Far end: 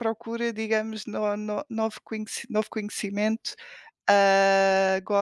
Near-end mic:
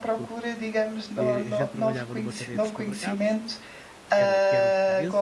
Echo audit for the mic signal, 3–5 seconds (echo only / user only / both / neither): both